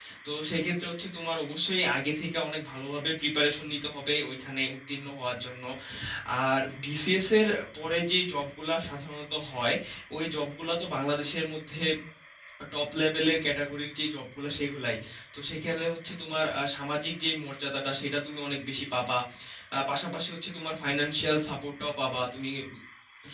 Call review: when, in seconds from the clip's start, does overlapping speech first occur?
none

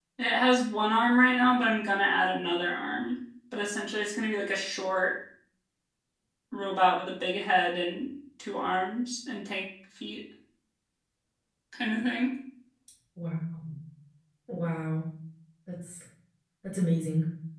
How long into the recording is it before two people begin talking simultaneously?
none

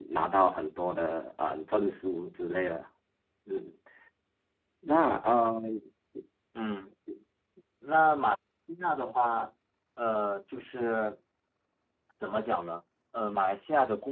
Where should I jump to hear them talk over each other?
none

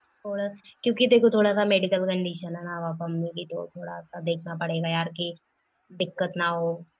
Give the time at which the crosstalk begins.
none

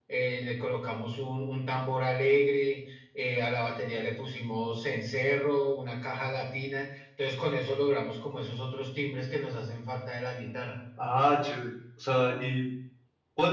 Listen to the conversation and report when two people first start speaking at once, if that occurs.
none

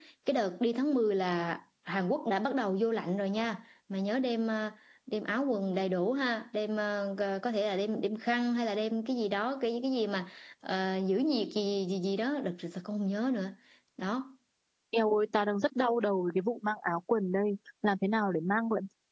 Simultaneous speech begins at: none

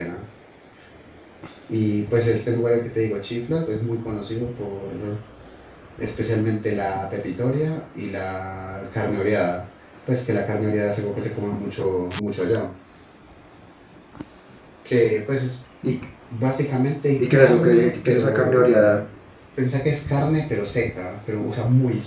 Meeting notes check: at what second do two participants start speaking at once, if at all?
17.2 s

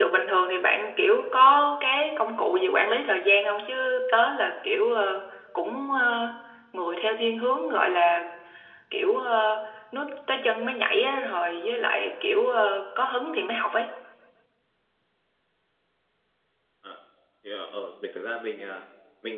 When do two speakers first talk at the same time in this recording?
none

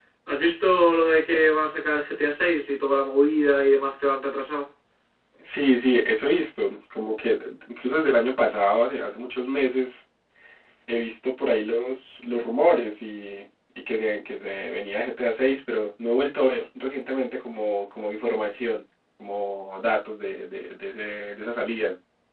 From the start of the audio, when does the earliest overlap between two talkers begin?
none

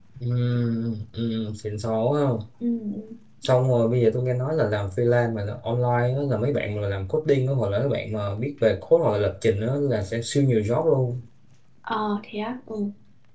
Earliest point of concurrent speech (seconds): none

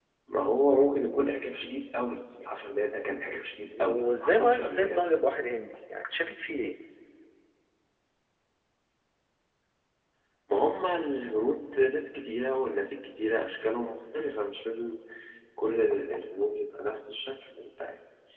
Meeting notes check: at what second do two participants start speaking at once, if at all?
3.7 s

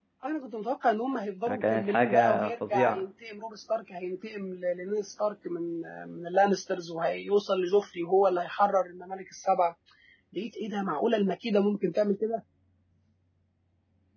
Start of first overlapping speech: 1.5 s

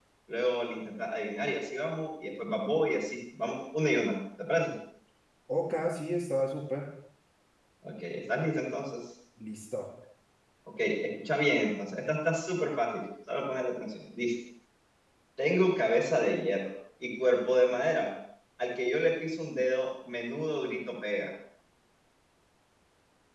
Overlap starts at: none

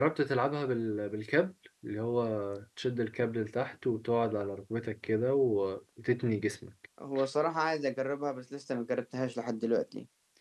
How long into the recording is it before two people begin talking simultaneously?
none

